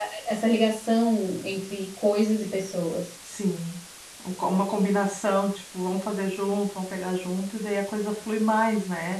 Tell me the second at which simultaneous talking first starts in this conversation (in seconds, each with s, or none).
none